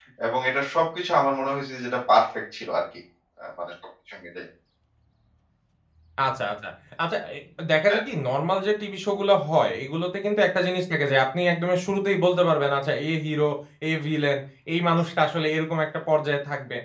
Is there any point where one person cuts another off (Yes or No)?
No